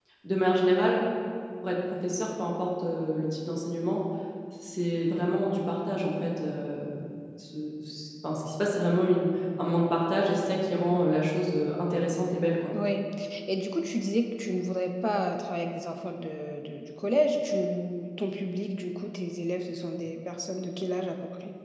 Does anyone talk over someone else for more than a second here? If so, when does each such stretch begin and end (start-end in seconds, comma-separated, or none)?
none